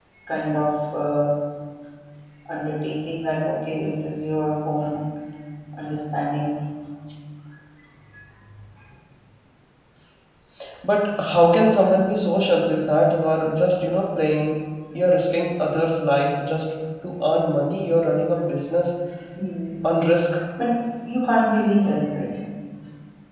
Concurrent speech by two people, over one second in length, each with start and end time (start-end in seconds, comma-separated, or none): none